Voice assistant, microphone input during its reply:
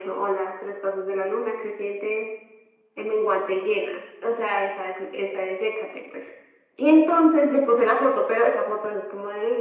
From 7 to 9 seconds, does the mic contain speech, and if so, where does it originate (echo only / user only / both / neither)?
echo only